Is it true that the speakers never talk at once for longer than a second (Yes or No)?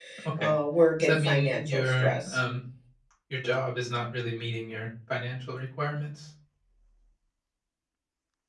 No